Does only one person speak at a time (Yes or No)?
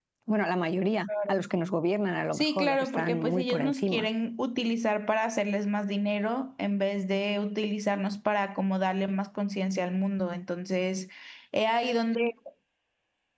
No